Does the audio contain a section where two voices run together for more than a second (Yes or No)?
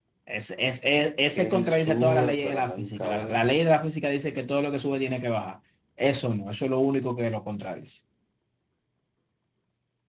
Yes